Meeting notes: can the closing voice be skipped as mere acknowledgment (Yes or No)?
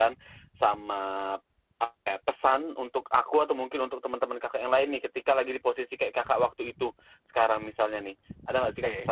No